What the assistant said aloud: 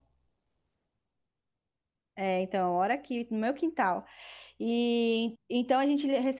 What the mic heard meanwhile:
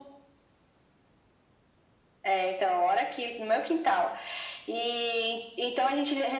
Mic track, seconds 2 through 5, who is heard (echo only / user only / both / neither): echo only